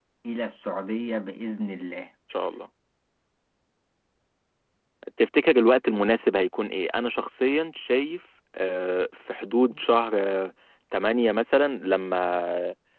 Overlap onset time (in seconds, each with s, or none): none